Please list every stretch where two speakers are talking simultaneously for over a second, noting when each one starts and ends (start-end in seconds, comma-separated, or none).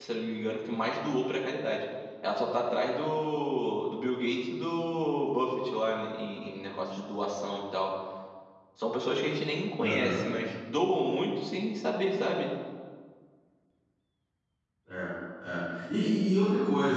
none